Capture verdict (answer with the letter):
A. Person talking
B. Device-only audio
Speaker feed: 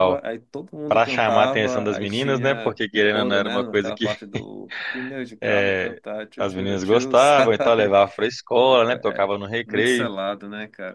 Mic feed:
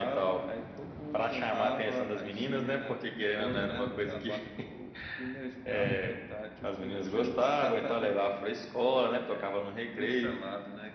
B